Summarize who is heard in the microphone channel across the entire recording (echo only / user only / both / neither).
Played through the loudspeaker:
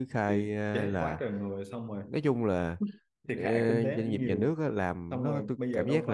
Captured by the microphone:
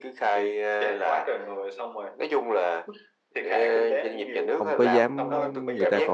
both